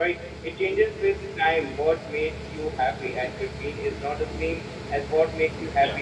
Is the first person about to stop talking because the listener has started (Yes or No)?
Yes